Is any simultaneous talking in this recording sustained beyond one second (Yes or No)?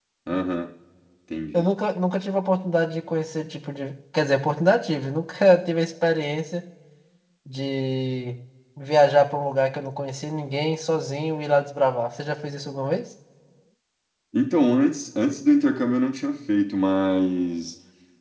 No